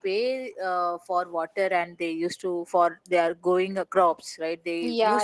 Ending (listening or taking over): listening